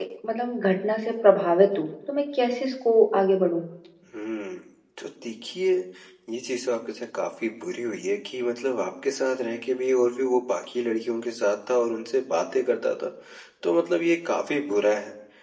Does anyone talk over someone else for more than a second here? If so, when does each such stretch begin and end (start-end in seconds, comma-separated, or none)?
none